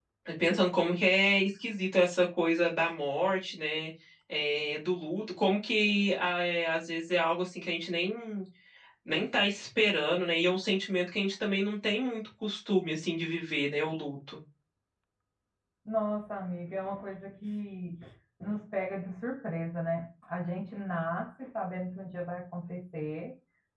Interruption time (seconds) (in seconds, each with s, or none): none